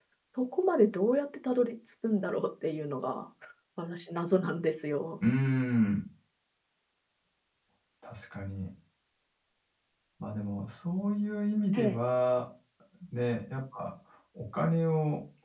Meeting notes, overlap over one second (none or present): none